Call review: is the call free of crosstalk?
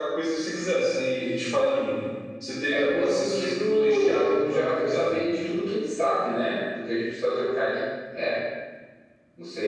No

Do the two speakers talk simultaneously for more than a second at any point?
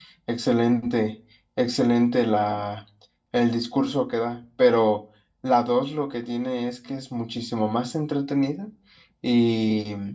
No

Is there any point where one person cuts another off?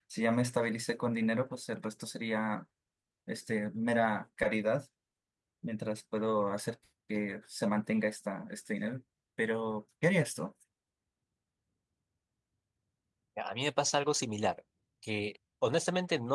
No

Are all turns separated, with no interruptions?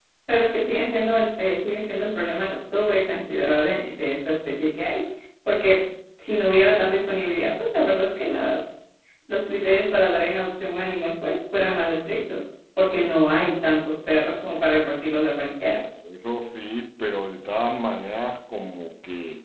Yes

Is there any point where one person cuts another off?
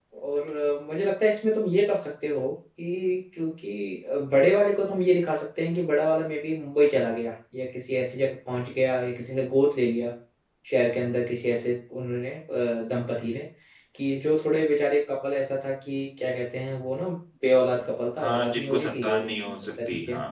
Yes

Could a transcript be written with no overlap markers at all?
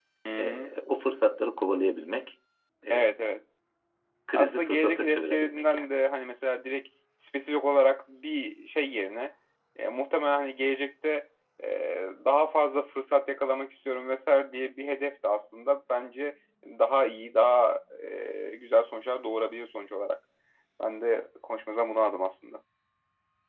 No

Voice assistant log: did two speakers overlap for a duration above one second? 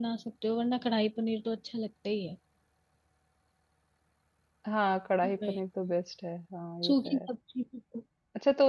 No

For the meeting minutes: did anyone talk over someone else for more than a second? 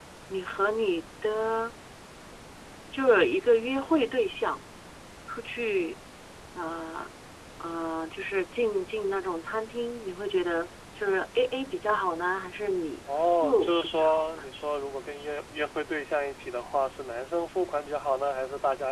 Yes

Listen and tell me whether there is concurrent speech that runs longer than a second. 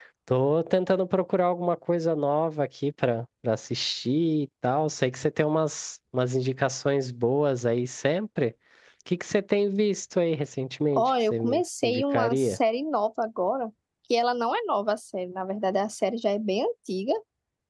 Yes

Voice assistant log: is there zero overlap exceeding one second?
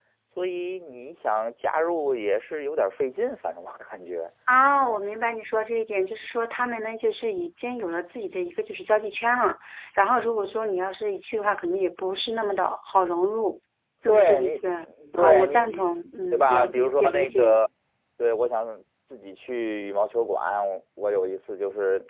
No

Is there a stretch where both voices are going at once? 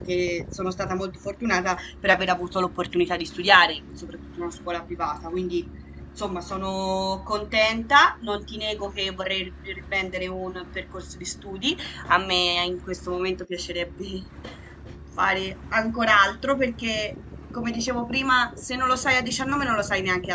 No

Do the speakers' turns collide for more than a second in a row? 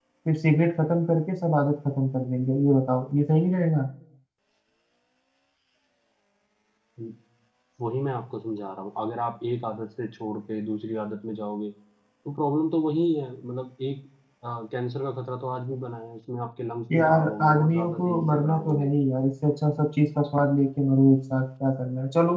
Yes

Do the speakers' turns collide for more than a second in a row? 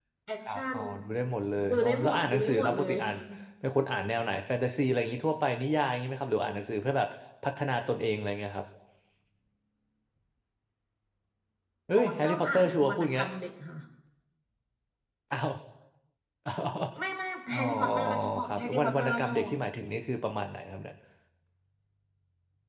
Yes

